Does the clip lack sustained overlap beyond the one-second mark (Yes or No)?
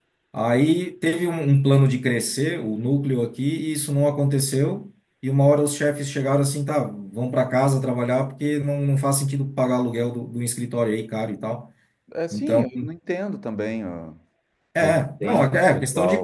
No